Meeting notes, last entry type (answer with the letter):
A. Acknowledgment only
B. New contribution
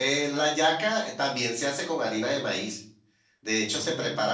A